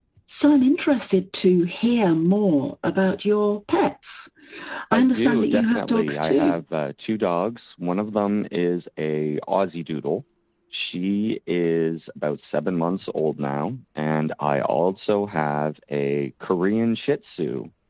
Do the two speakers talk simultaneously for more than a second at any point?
Yes, from 4.9 s

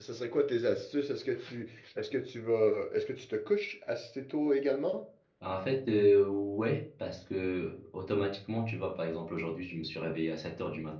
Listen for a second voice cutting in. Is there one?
No

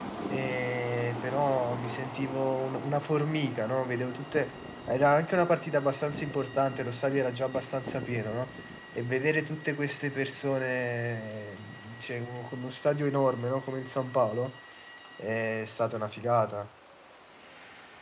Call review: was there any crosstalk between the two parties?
No

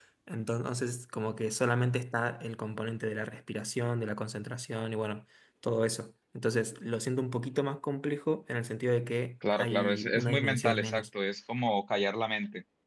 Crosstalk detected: Yes, from 9.4 s

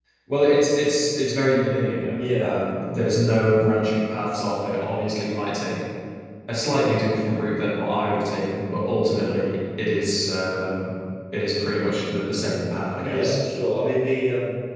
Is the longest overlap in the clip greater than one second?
No

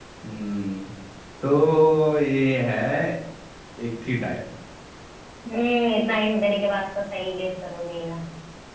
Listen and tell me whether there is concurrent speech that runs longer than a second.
No

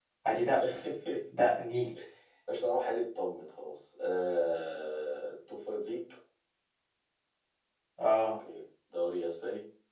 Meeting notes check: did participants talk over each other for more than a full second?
No

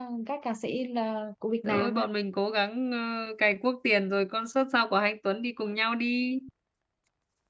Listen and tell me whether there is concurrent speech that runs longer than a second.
No

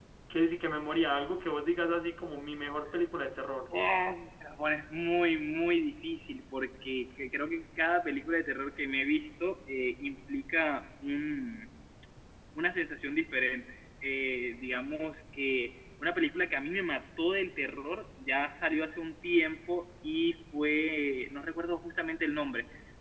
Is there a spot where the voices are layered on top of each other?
No

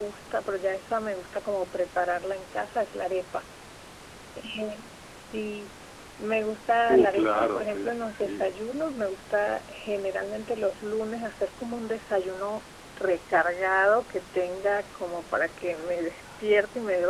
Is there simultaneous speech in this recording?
Yes, from 6.9 s

